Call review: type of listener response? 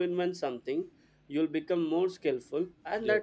listening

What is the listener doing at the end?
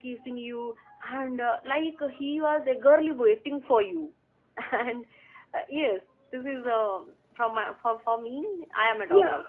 taking over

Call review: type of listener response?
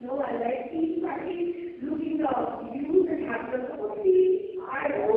taking over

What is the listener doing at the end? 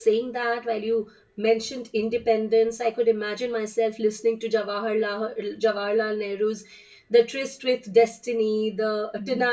listening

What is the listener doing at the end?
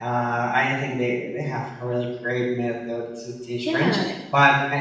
listening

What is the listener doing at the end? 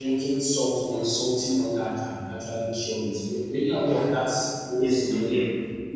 taking over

